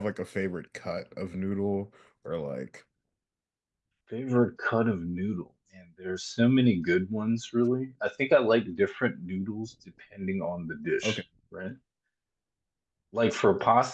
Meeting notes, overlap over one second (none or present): none